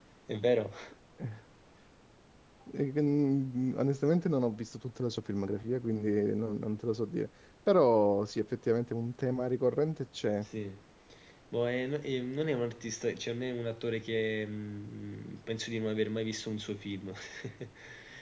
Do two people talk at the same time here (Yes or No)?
No